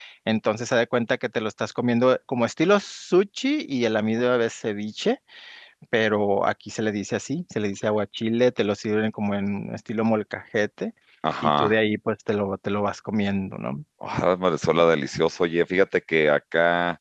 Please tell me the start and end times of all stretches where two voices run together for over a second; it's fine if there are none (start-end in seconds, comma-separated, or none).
none